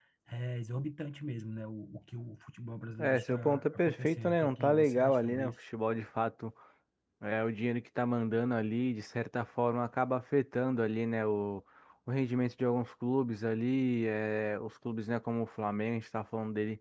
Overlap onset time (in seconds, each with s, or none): 3.0 s